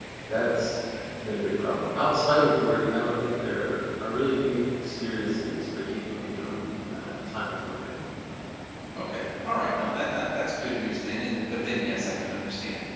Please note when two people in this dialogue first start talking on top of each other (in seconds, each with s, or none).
none